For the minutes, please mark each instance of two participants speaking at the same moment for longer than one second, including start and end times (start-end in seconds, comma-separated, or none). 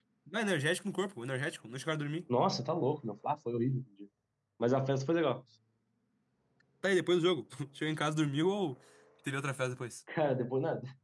none